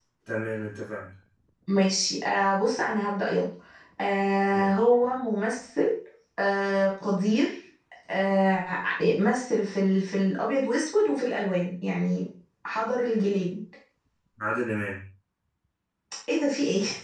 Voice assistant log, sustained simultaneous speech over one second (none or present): none